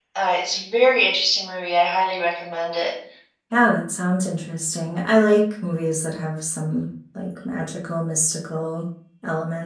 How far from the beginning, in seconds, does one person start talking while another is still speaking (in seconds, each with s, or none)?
none